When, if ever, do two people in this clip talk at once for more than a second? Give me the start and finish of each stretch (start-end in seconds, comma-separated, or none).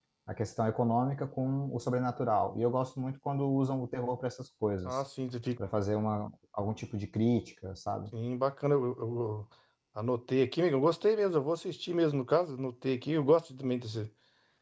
none